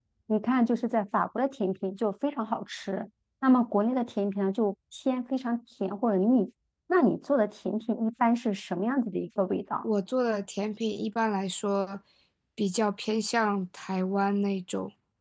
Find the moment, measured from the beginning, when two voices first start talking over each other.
none

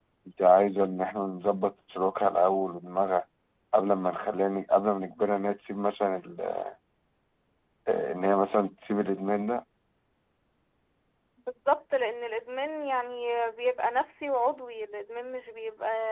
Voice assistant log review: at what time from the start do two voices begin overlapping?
none

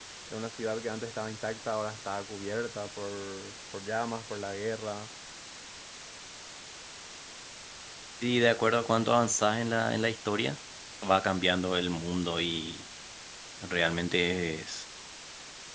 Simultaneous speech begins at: none

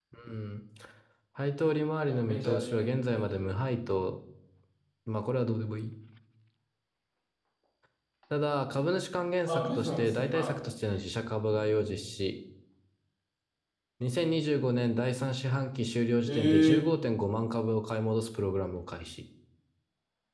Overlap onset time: 2.1 s

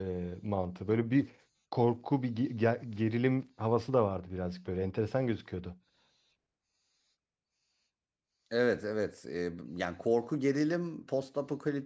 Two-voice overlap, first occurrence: none

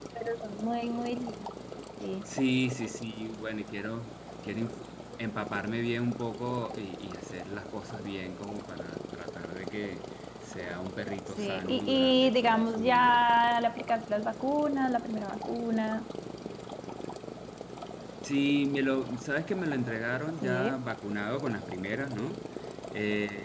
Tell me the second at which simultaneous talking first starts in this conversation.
11.4 s

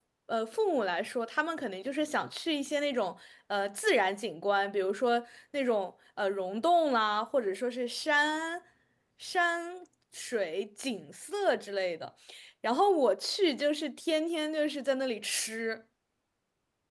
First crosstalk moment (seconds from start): none

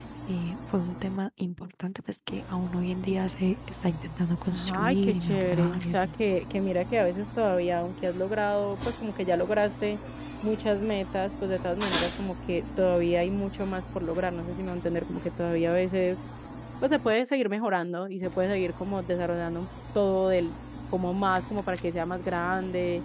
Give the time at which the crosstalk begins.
4.5 s

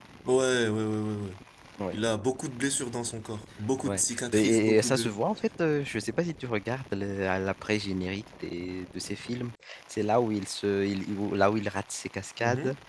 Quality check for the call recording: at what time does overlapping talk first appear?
3.9 s

